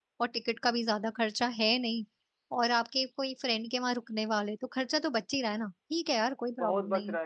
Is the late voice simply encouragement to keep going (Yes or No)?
No